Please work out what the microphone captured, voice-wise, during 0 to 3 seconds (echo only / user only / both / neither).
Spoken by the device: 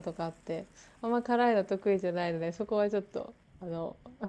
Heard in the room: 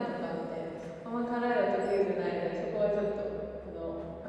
echo only